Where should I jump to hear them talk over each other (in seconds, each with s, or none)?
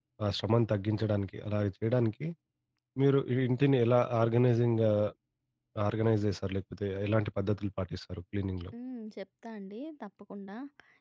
none